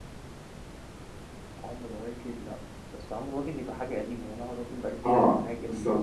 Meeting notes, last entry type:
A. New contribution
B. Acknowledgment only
A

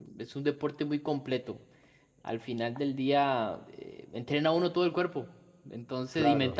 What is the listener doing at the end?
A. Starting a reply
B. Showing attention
B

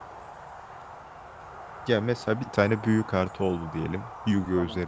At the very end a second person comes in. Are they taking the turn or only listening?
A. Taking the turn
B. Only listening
B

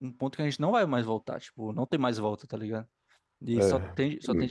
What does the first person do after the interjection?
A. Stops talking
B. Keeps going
B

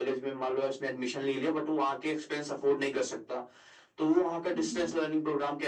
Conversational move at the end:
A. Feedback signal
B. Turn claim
A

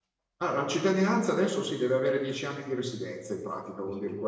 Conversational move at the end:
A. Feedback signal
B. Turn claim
A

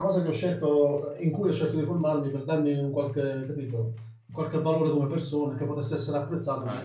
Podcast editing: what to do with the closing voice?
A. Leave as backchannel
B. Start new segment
B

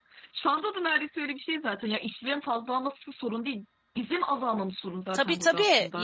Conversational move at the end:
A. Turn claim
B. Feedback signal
A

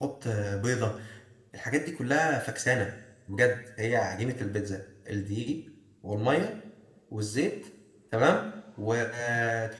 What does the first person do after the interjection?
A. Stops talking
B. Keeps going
B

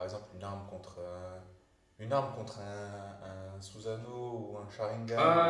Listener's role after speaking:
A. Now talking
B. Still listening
A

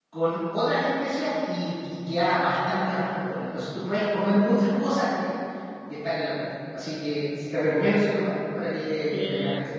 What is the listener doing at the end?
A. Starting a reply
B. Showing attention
A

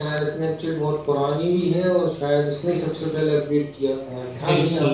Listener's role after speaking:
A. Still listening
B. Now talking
B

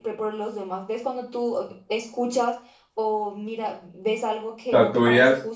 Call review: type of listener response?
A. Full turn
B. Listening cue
A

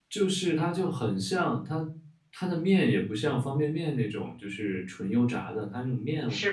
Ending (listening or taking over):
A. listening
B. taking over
A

